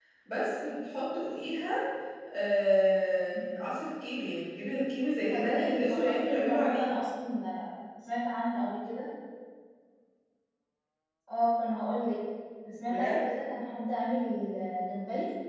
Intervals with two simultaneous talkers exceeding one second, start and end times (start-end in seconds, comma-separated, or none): 5.3-7.0